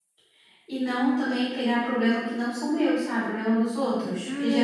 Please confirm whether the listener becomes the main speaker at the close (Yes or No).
Yes